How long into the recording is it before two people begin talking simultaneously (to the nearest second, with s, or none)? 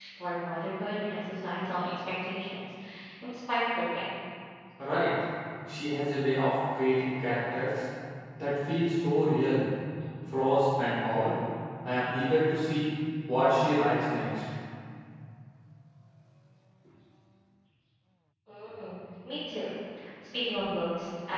none